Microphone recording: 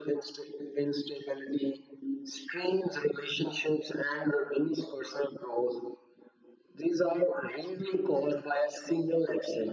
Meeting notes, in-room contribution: none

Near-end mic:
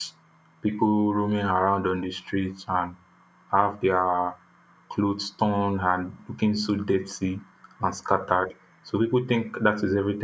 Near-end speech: present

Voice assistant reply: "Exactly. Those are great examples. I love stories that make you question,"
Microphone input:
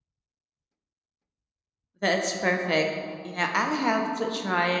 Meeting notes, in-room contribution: present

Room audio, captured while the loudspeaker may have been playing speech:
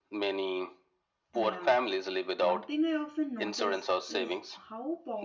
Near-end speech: present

